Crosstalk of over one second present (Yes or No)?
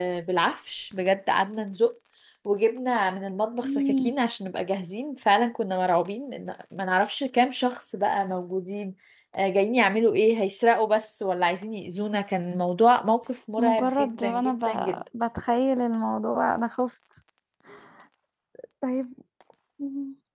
Yes